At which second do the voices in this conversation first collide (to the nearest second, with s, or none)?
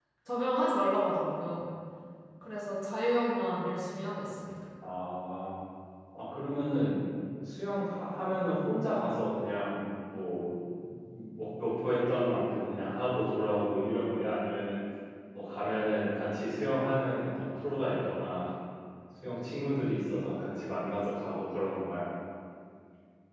none